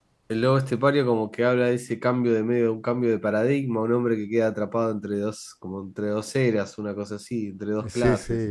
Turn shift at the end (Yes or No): Yes